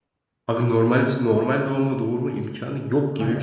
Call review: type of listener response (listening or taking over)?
taking over